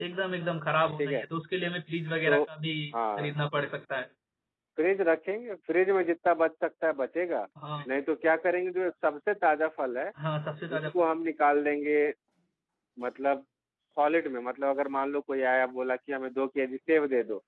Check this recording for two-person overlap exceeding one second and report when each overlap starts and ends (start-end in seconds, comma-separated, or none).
none